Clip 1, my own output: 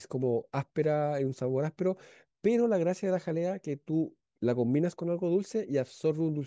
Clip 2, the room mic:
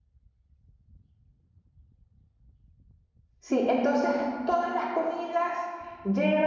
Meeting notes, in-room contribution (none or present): present